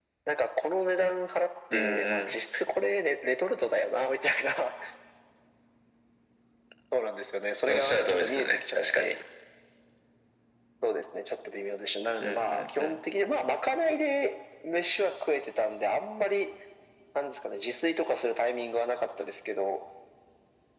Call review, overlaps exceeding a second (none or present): present